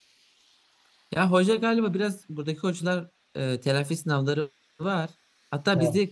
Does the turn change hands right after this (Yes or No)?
No